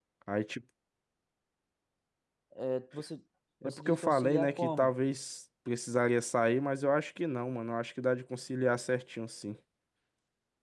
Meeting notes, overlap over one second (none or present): present